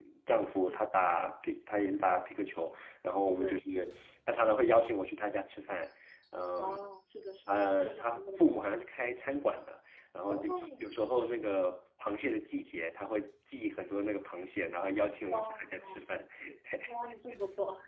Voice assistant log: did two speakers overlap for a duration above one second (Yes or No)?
Yes